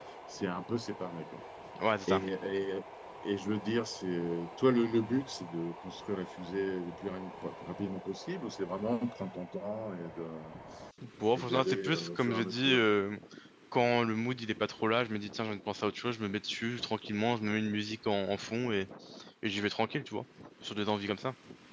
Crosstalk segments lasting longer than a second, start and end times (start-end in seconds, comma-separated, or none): 11.3-12.8